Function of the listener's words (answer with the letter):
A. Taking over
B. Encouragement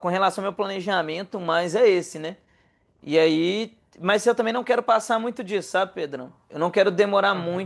B